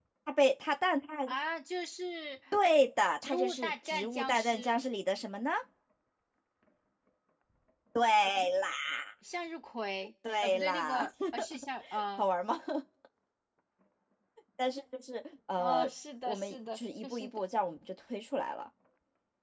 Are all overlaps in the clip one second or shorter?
No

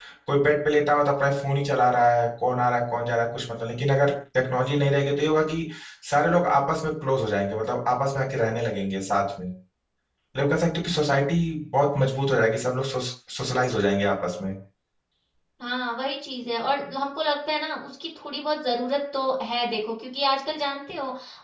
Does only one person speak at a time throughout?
Yes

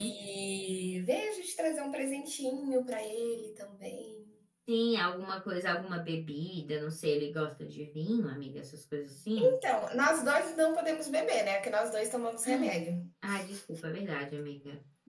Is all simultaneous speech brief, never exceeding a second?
Yes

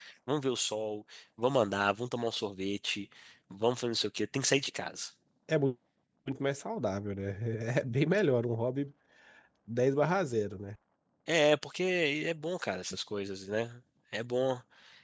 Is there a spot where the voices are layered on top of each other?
No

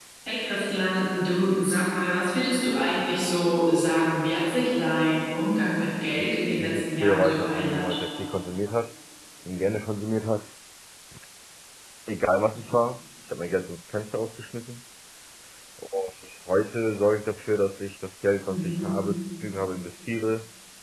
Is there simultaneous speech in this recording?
Yes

